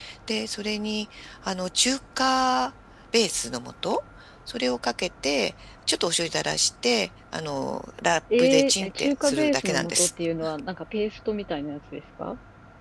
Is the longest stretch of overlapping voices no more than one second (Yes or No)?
No